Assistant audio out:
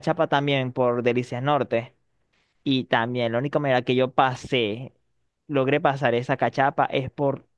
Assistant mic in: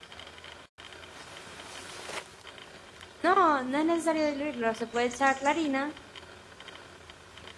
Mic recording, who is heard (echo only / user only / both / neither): user only